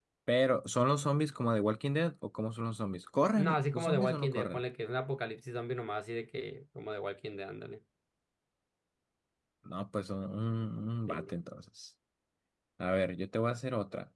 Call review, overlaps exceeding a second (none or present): present